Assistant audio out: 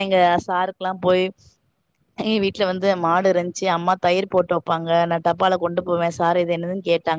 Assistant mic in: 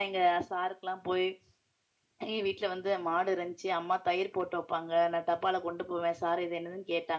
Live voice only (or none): none